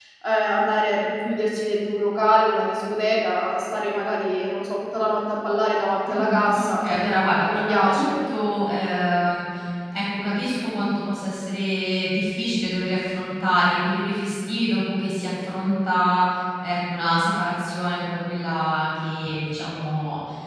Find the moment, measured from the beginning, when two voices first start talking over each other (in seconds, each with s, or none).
6.1 s